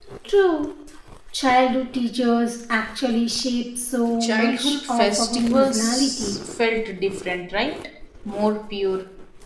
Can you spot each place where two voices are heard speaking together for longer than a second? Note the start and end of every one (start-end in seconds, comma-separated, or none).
4.2-6.4